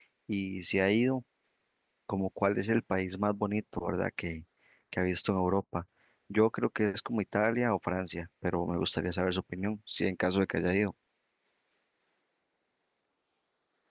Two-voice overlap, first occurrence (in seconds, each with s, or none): none